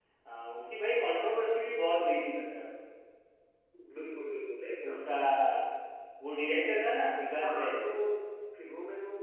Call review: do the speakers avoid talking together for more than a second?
Yes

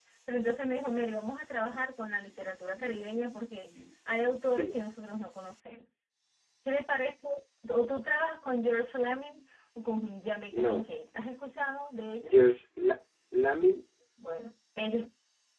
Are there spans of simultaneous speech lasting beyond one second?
No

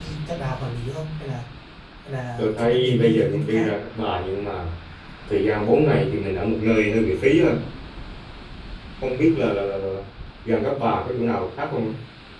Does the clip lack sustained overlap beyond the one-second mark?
No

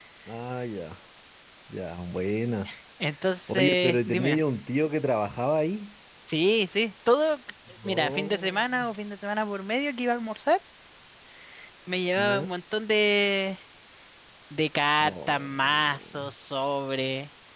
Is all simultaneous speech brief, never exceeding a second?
No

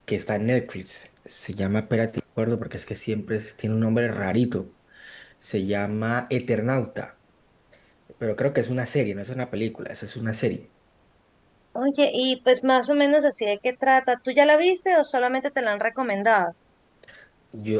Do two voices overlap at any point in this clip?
No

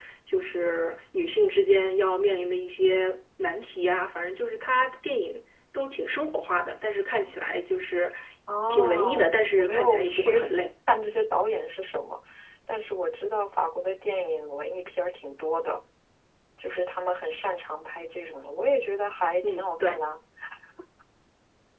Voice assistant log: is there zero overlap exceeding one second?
No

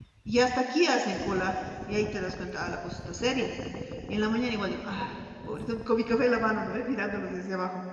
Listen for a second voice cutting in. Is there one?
No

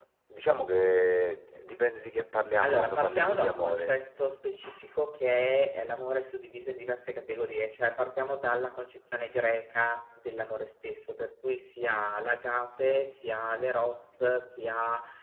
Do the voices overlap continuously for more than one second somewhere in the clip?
Yes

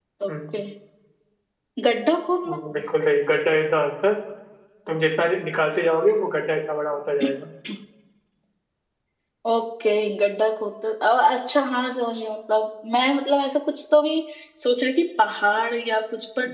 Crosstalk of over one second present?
No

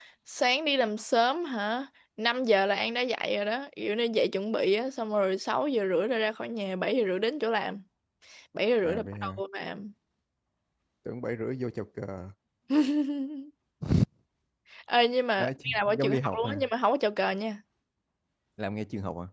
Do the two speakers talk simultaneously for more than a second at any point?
Yes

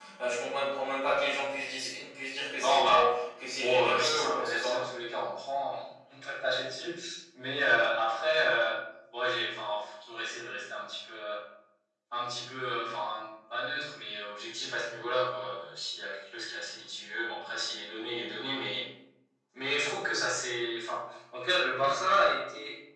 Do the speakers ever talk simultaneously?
Yes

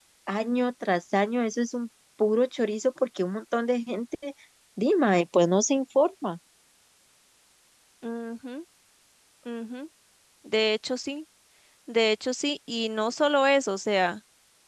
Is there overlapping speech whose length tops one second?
No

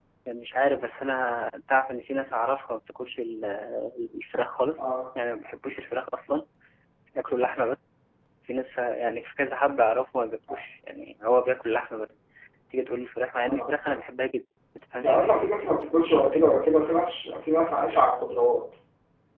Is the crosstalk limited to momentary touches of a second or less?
Yes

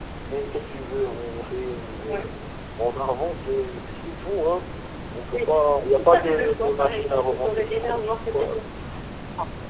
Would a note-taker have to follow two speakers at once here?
Yes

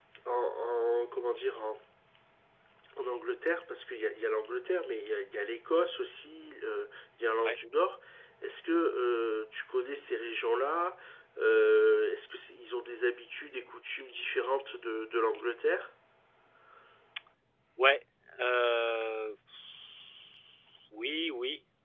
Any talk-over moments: No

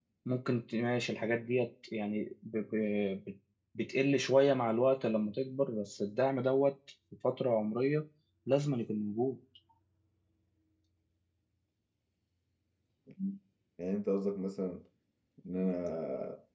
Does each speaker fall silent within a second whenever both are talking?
Yes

